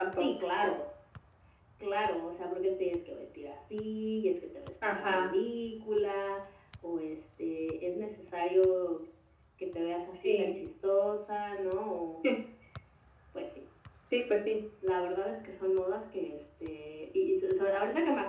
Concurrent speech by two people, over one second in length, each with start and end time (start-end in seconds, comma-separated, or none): none